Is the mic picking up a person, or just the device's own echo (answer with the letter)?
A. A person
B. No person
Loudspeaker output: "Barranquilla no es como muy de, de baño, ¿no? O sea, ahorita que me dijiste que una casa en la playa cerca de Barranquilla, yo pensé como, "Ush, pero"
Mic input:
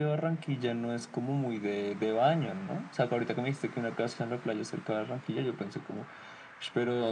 B